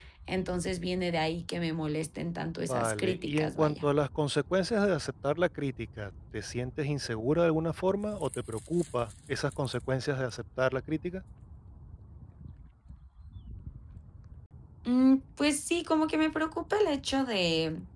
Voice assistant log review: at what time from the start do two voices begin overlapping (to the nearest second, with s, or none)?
3 s